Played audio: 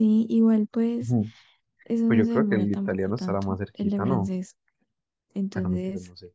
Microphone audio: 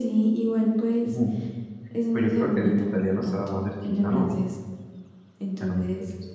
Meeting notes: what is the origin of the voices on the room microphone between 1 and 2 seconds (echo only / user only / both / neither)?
echo only